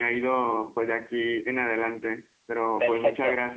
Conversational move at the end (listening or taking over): taking over